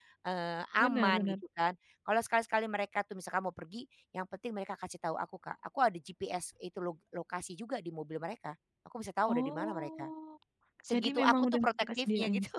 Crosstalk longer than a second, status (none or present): present